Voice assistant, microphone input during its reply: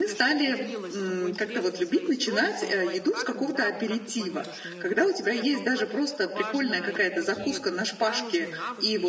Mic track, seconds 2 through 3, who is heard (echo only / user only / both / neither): both